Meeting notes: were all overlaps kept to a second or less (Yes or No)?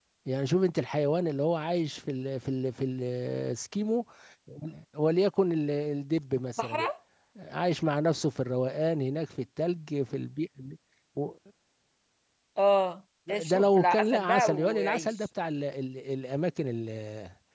No